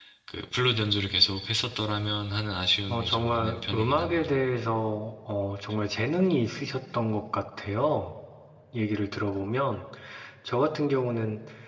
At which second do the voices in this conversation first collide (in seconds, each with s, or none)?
2.9 s